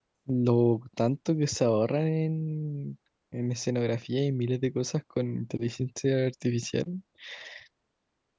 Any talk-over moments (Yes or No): No